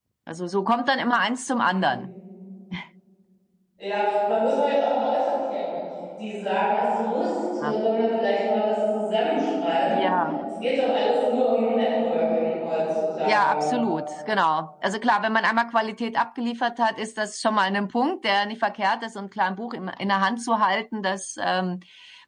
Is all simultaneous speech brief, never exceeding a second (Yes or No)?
Yes